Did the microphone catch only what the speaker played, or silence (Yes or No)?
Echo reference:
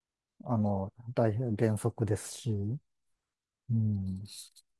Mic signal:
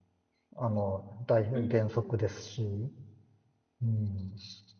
No